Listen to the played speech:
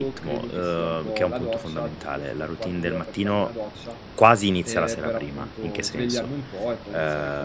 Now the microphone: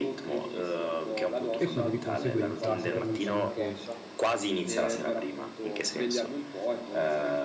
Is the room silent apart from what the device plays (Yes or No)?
No